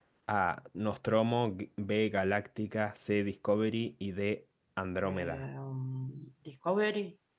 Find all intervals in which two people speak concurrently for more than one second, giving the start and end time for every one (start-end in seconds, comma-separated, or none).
none